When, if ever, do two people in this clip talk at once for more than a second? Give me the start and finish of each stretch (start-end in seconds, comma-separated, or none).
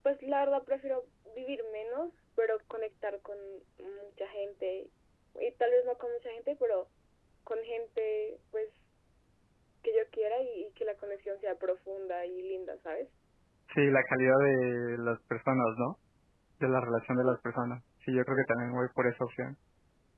none